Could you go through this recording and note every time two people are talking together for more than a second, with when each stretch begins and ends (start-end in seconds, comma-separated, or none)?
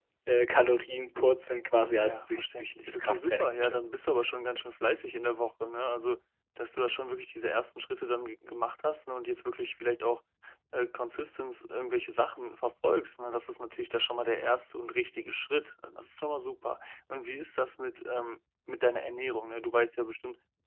1.9-3.8